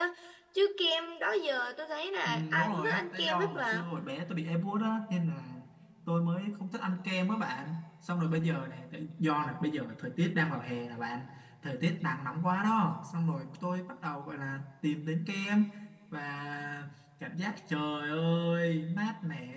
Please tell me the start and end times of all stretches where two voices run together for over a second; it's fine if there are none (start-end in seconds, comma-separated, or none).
2.2-3.9